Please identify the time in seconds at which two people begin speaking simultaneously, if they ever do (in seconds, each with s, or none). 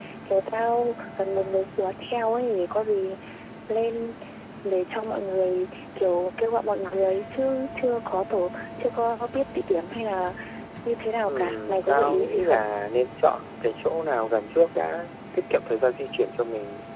11.3 s